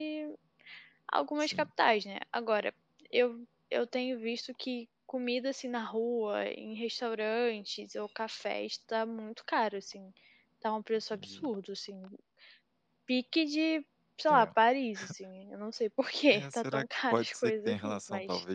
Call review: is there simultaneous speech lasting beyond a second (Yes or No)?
Yes